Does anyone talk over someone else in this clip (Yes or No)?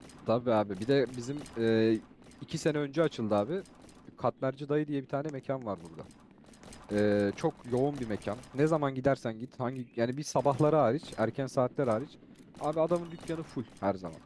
No